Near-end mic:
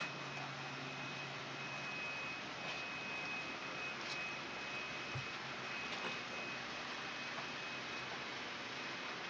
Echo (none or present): none